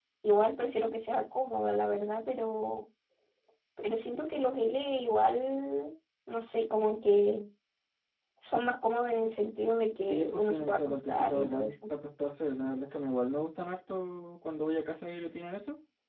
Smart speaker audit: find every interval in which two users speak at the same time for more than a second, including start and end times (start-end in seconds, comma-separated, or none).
10.1-11.7